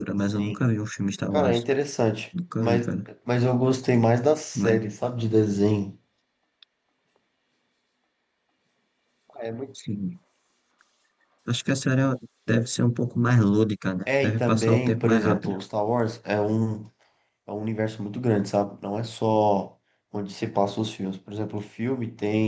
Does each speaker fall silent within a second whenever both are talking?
No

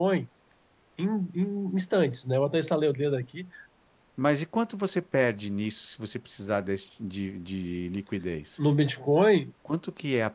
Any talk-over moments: No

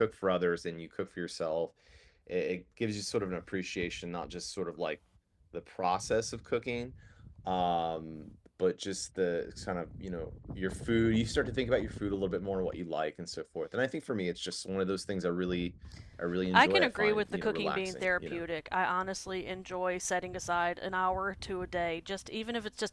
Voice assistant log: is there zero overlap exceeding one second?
No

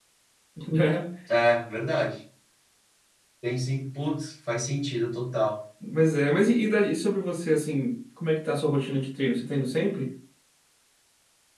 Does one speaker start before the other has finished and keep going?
No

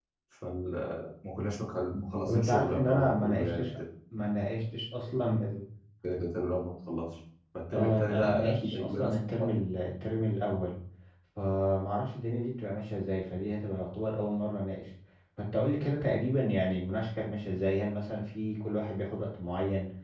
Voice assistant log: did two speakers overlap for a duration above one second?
Yes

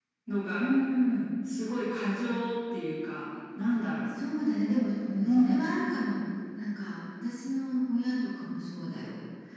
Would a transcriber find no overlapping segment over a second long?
Yes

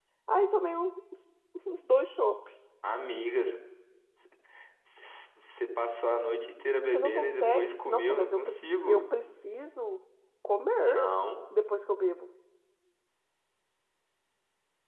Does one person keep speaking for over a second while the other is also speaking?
Yes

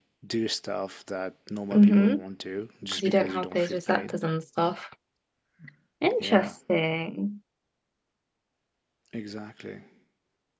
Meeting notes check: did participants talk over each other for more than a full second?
Yes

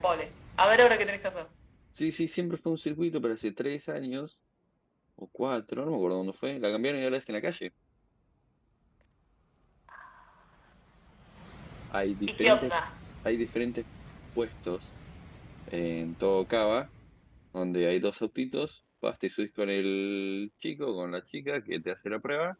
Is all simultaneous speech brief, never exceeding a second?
Yes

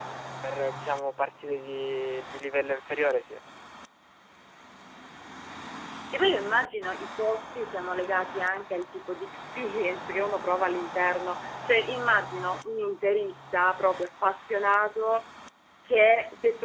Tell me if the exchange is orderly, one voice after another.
Yes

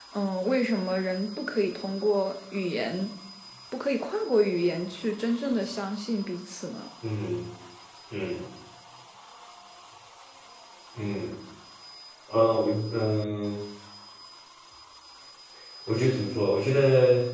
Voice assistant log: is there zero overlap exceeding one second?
Yes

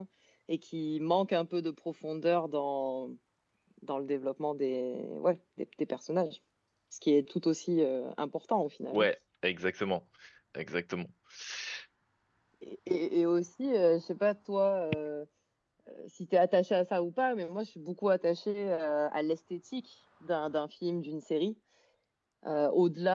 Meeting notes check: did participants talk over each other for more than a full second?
No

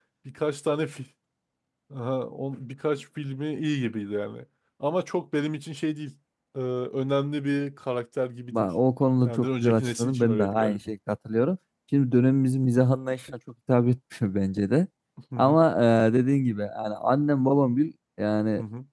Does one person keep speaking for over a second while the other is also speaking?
Yes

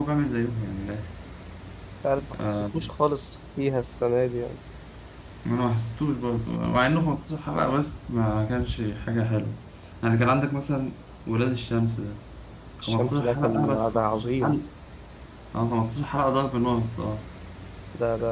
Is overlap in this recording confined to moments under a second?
No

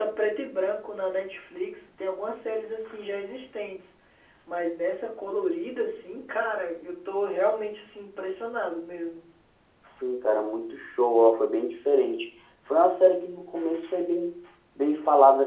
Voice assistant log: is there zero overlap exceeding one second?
Yes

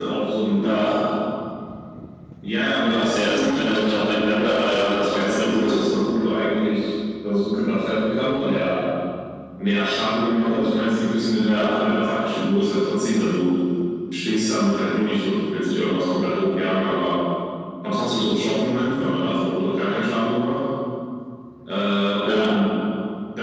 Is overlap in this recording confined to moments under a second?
No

